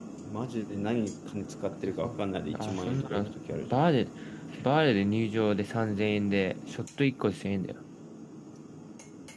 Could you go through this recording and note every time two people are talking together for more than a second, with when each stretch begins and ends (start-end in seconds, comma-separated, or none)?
2.5-3.8